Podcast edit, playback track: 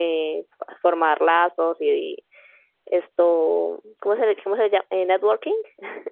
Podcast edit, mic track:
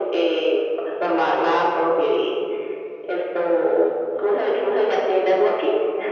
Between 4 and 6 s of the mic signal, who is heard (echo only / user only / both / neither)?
echo only